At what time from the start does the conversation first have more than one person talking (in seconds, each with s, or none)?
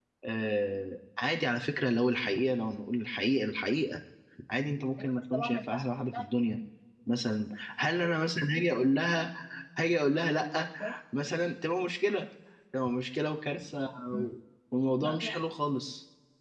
5.0 s